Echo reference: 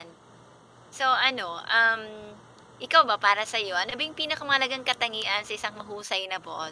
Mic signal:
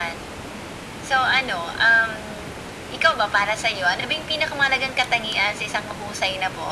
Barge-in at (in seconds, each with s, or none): none